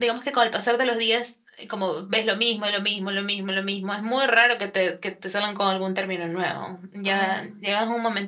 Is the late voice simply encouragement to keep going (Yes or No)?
Yes